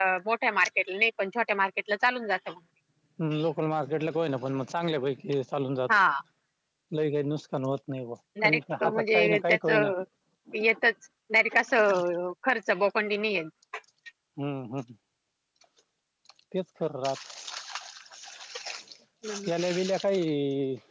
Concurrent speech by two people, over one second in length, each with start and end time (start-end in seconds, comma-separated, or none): 8.4-9.7